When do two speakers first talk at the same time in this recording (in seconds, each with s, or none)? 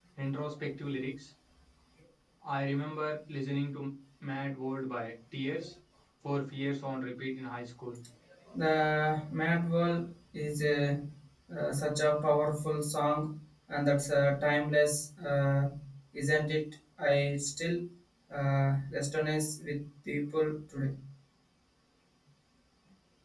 none